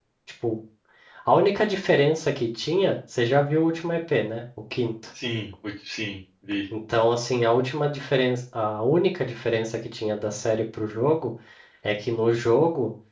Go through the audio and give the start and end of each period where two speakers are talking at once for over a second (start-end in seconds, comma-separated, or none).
none